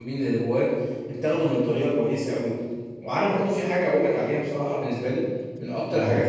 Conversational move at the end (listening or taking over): listening